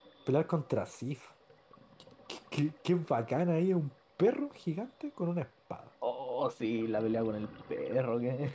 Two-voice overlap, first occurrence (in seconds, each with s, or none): none